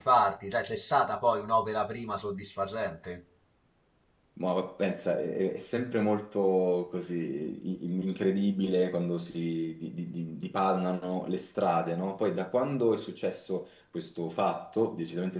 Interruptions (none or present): none